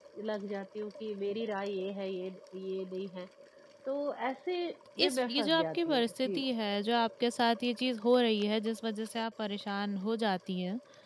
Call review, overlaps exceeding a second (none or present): present